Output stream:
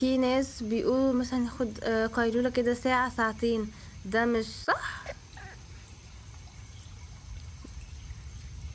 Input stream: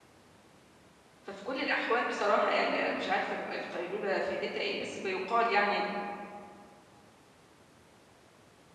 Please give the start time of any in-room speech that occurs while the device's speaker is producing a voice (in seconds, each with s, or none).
1.2 s